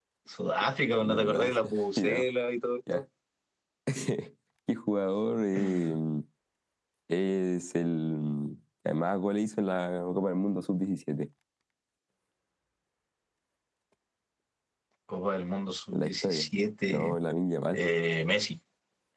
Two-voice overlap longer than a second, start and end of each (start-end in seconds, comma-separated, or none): 1.0-2.3